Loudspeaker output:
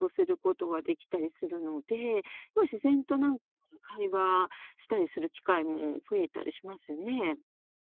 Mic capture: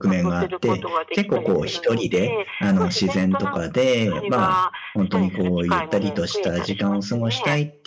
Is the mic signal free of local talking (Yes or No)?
No